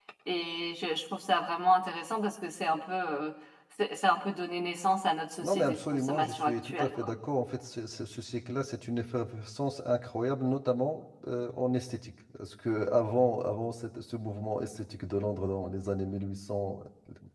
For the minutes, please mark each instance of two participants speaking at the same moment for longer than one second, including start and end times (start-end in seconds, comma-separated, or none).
5.4-7.1